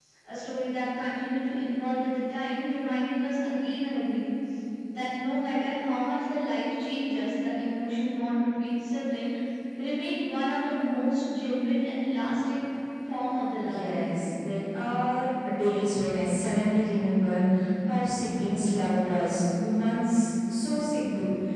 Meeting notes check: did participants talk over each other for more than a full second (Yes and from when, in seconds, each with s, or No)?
No